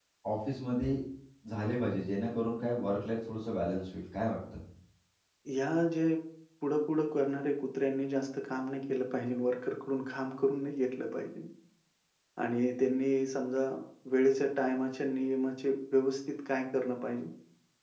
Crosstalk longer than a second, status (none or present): none